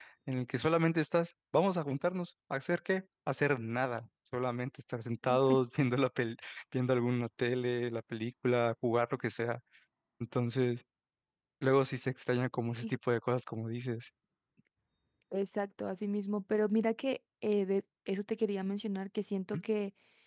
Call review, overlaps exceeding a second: none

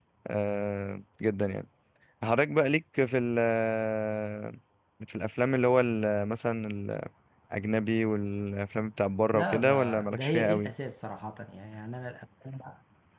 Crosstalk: present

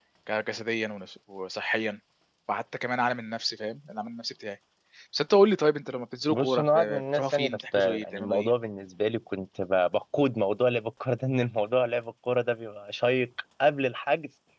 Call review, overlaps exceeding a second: present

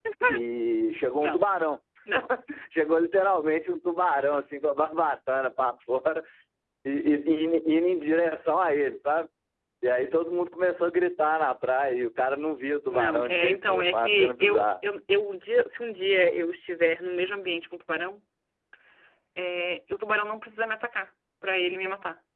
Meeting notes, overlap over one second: present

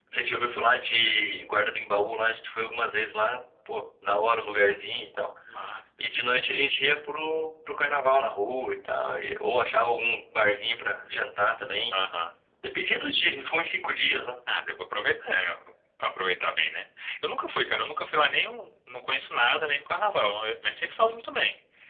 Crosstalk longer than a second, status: none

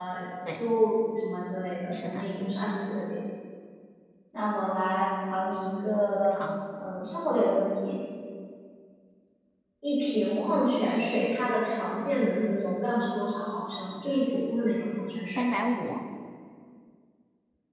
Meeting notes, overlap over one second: none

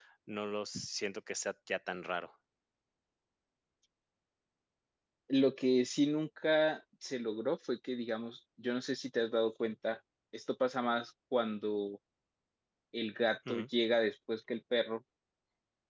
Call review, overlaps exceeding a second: none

